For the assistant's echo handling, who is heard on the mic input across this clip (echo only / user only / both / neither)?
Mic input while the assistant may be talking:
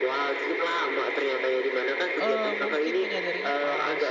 both